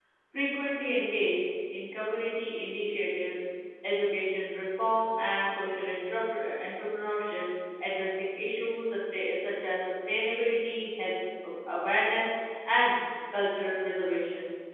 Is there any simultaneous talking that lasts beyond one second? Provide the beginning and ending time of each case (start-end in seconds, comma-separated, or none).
none